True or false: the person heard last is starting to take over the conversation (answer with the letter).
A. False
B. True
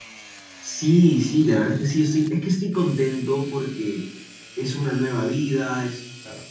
A